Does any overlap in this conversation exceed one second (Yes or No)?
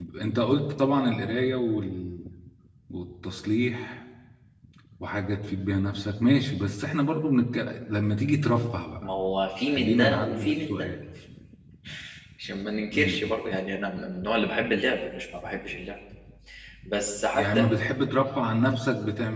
Yes